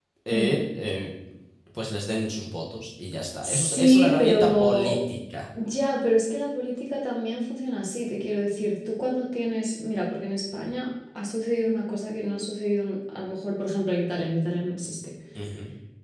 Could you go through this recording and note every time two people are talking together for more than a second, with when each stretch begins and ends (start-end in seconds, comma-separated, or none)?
3.4-5.0